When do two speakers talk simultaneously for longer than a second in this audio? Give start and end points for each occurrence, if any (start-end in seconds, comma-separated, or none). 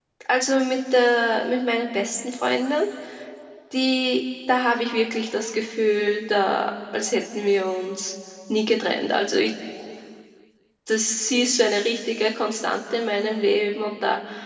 none